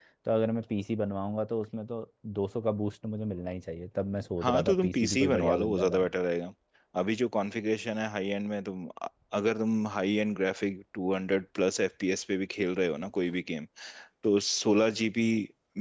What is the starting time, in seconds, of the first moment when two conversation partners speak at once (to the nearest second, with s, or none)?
4 s